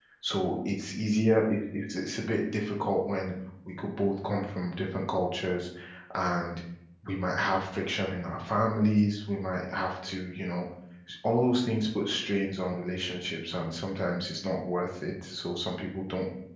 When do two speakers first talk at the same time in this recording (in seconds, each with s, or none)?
none